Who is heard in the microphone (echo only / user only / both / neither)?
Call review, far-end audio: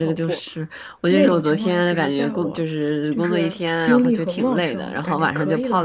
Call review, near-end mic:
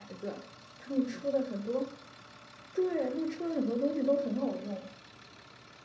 user only